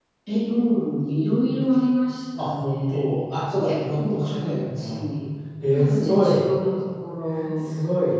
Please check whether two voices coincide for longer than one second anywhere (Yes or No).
Yes